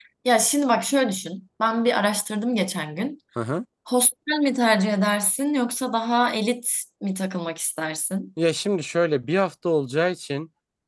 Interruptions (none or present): none